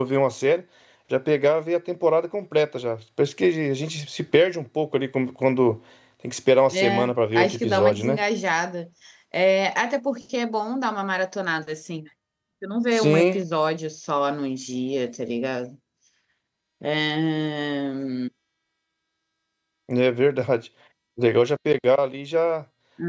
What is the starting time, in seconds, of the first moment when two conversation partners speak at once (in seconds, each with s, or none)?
6.7 s